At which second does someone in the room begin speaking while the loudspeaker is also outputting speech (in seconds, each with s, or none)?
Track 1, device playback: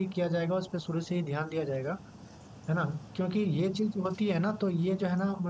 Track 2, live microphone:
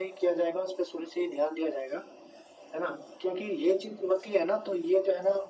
none